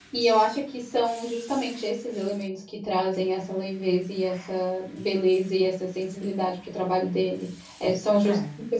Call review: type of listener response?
listening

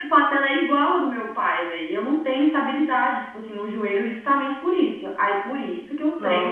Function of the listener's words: listening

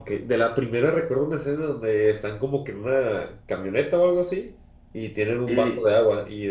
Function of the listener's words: listening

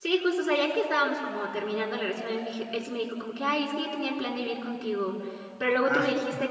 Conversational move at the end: listening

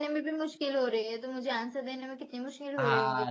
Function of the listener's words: taking over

